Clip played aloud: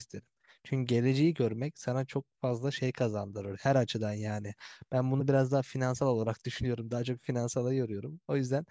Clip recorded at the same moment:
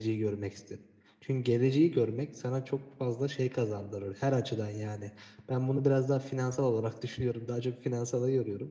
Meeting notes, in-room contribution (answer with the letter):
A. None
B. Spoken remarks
A